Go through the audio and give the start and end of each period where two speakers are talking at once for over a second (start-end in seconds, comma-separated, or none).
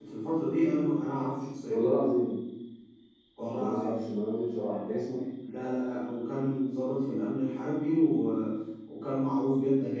none